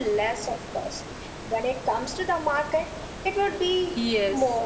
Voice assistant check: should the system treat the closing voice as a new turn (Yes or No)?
Yes